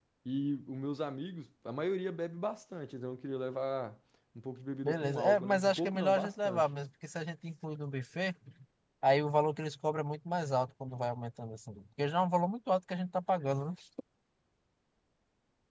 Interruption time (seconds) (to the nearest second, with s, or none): 5 s